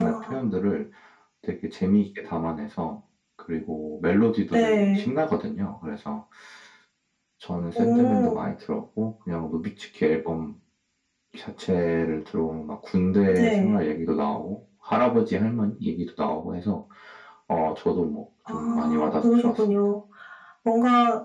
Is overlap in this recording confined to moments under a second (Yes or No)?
No